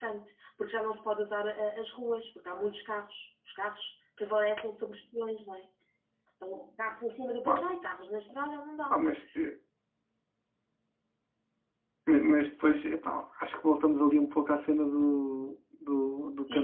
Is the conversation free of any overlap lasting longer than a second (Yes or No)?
Yes